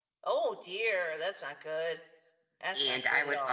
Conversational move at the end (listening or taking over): taking over